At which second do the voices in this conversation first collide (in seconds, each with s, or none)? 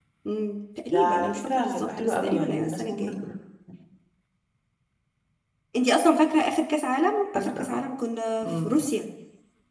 0.9 s